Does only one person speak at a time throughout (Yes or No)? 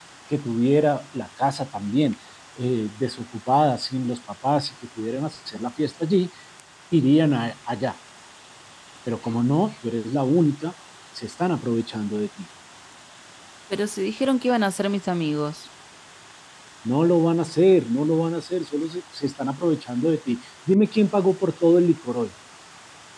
Yes